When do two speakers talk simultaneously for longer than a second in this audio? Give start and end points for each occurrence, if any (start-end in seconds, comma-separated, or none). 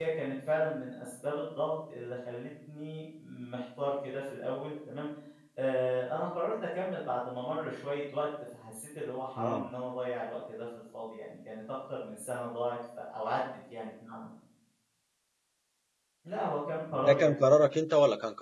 none